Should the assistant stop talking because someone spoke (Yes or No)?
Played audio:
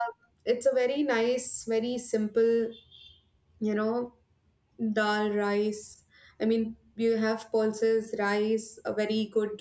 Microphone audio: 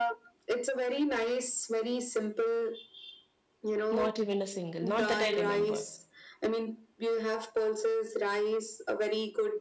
Yes